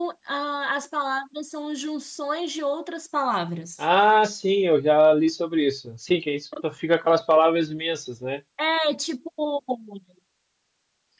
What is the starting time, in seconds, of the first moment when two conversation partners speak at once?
none

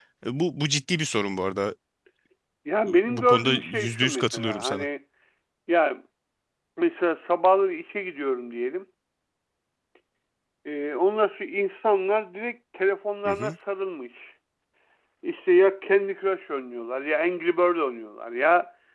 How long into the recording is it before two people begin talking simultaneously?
3 s

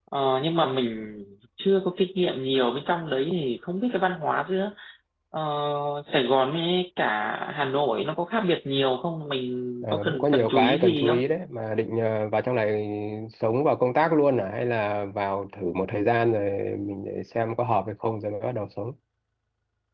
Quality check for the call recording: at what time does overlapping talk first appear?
10 s

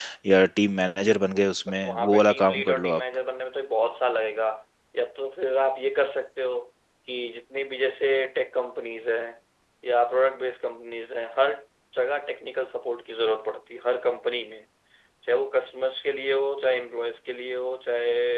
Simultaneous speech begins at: 2 s

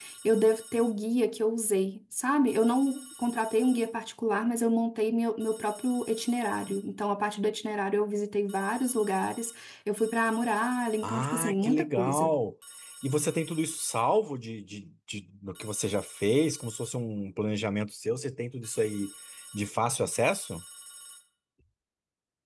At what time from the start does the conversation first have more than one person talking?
11 s

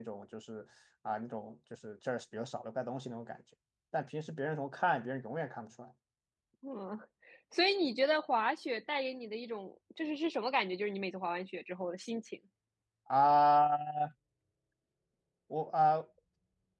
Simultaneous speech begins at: none

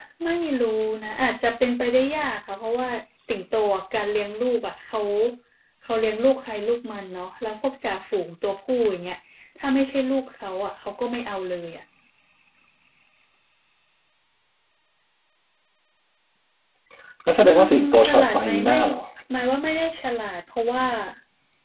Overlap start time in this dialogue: 17 s

